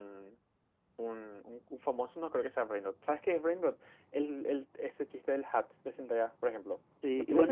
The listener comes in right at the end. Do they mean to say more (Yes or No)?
Yes